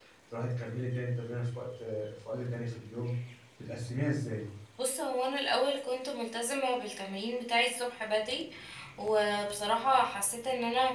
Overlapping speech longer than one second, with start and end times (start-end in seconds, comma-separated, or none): none